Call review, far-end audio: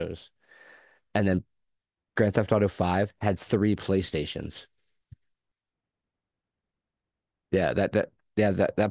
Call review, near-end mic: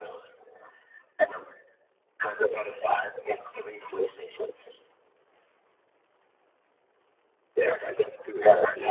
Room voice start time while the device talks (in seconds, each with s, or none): 7.8 s